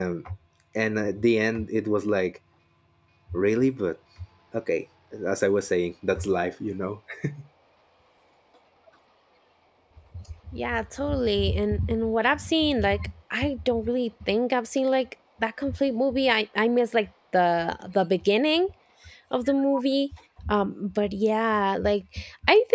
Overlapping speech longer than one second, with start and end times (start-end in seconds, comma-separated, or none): none